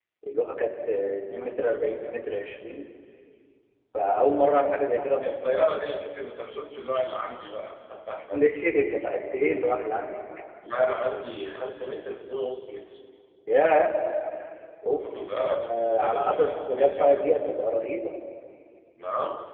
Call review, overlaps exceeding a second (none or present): present